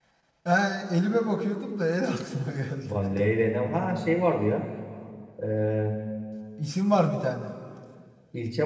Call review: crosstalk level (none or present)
none